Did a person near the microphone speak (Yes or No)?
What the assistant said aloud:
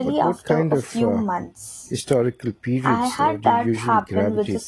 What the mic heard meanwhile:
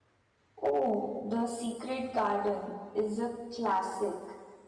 Yes